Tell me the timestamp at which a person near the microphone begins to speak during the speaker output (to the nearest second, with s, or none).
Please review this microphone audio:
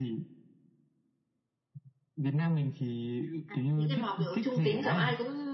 3 s